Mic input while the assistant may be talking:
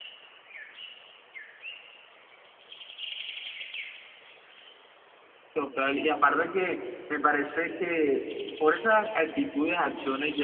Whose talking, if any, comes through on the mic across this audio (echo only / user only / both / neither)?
user only